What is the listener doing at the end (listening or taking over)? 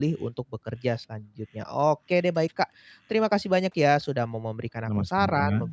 listening